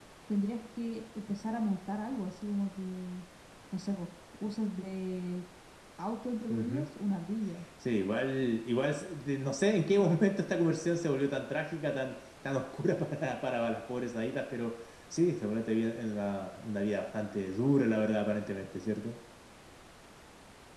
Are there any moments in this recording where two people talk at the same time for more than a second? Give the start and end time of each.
none

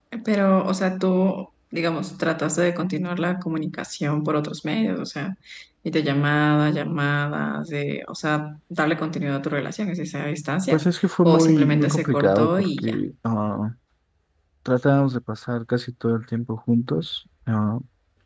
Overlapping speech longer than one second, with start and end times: 11.2-13.0

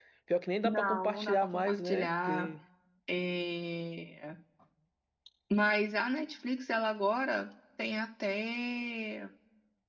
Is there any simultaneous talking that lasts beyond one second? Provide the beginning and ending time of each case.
0.6-2.5

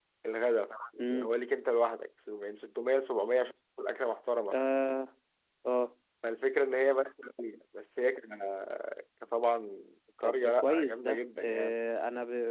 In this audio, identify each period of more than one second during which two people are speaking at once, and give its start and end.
10.2-11.8

